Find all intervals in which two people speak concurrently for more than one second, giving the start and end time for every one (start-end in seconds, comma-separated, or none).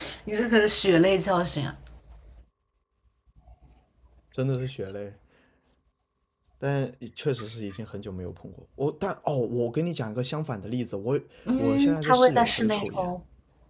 11.6-13.1